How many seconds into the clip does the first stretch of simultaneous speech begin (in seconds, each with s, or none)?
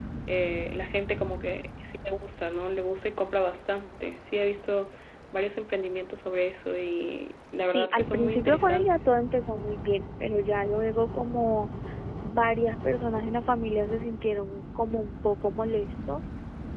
7.7 s